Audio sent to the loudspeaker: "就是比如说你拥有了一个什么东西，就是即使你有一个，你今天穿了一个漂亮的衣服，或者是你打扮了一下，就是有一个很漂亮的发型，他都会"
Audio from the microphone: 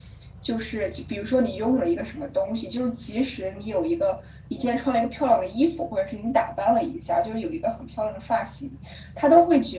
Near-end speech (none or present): none